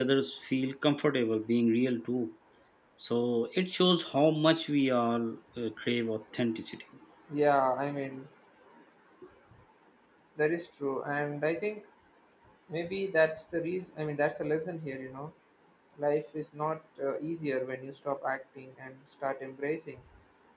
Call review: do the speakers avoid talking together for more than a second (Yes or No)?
Yes